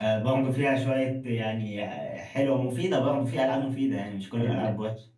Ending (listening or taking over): taking over